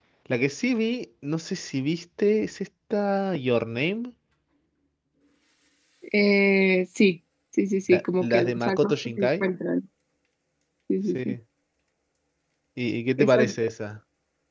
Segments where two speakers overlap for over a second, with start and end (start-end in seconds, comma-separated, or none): 7.9-9.5